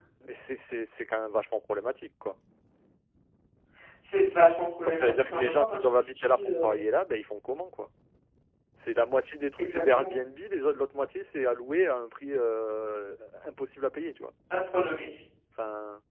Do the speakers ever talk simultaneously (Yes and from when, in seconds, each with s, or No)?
Yes, from 4.9 s